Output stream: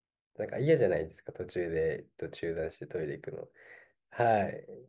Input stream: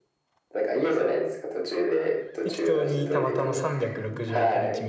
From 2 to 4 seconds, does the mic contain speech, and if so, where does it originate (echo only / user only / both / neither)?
both